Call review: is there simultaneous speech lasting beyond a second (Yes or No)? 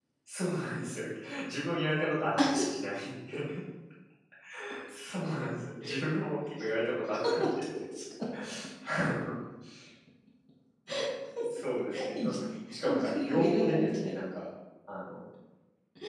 Yes